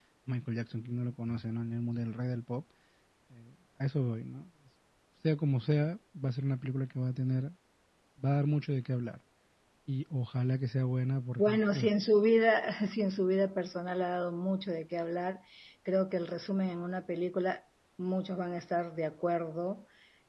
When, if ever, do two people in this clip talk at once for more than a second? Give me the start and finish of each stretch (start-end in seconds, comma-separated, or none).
none